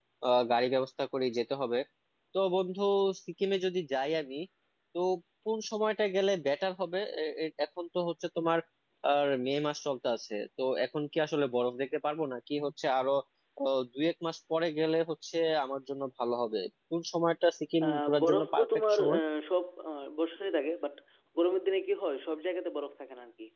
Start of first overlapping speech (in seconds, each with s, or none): 17.8 s